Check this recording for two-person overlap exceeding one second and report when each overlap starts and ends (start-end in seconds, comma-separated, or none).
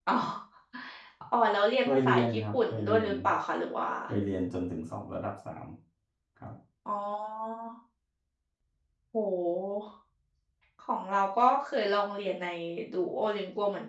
1.8-3.1